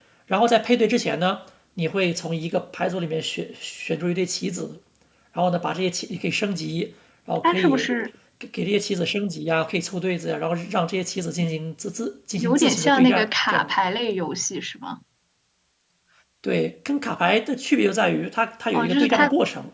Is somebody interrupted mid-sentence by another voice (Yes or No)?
Yes